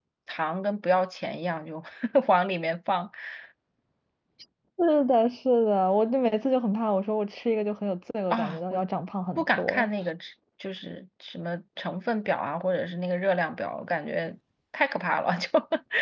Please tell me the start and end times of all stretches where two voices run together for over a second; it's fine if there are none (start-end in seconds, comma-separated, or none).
none